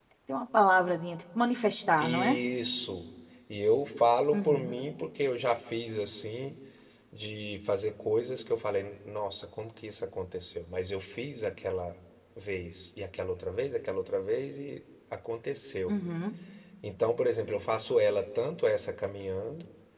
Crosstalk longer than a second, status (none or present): none